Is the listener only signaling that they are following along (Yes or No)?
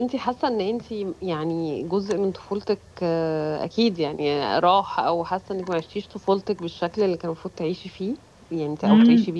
No